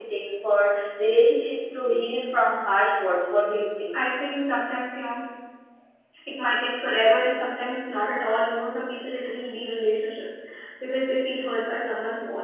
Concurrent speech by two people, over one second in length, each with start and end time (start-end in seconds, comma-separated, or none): none